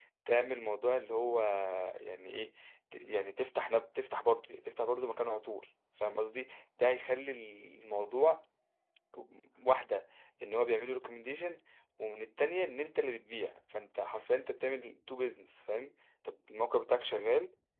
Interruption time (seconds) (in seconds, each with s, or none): none